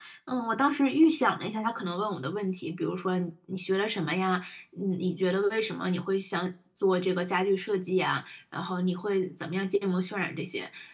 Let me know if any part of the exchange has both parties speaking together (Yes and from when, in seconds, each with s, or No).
No